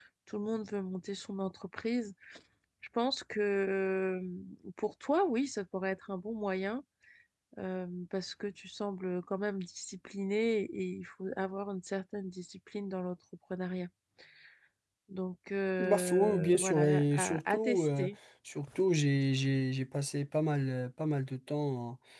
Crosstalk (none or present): present